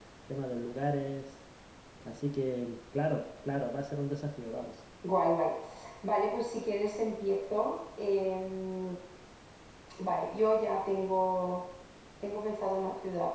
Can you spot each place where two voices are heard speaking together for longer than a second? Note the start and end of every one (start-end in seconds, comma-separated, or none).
none